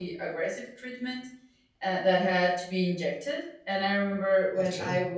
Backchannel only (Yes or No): Yes